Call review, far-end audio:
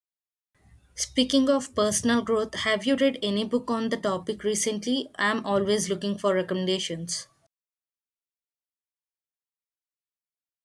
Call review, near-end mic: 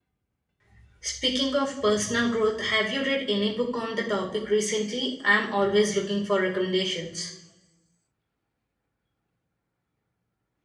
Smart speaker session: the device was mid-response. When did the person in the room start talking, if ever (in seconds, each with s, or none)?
none